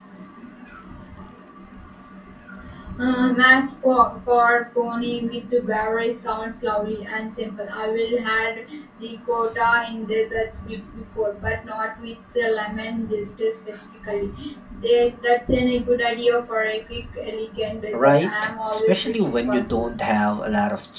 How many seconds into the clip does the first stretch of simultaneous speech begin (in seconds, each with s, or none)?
17.9 s